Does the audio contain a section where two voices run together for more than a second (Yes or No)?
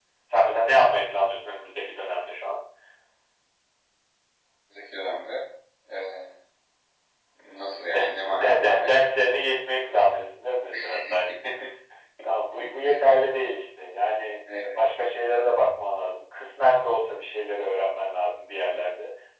Yes